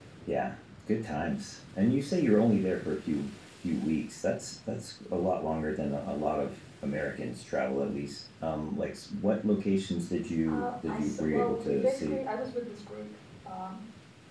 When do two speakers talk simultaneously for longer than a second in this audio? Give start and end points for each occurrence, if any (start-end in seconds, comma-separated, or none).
10.5-12.2